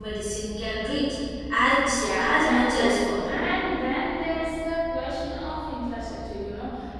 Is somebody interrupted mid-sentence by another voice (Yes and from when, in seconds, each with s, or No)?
Yes, from 1.8 s